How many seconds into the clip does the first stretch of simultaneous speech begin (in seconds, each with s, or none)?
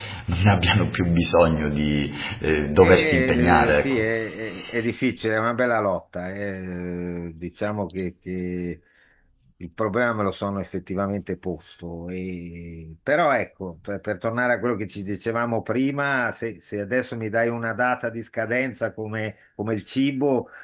2.8 s